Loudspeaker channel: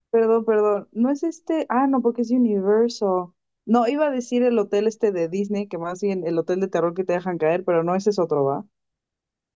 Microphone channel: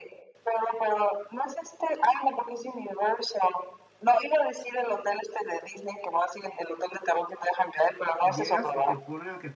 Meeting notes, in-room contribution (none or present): present